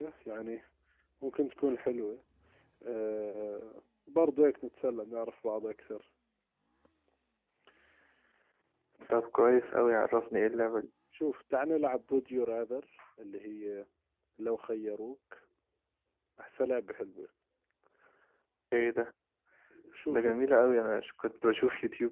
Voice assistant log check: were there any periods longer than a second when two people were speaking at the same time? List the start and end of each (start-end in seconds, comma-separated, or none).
none